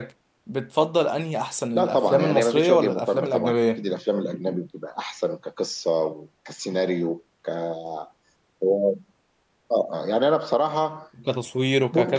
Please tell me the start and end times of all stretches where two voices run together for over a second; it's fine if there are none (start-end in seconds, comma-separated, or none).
1.8-3.8